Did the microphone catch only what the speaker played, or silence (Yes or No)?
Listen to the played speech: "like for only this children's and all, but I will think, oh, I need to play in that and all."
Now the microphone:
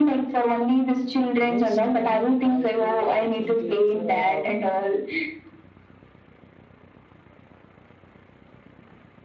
No